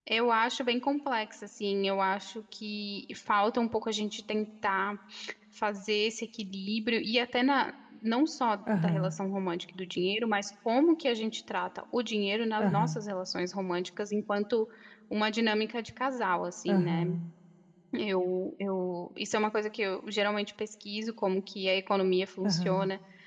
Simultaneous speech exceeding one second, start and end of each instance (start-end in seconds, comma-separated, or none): none